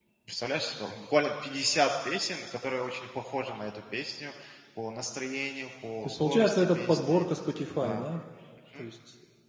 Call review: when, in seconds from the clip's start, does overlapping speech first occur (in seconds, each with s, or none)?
6.0 s